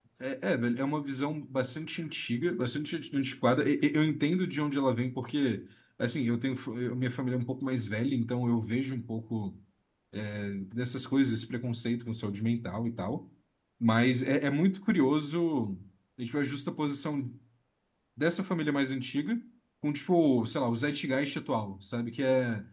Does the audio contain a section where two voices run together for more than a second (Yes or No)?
No